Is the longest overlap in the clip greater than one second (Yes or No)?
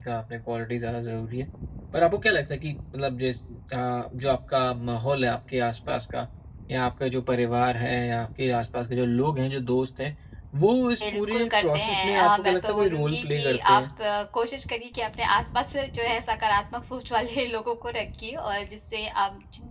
Yes